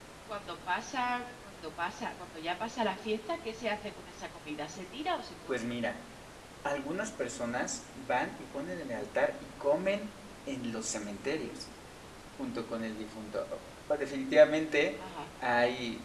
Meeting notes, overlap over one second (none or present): none